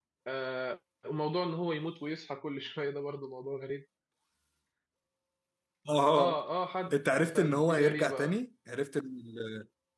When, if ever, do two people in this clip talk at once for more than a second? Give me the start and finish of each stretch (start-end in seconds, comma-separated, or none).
6.9-8.4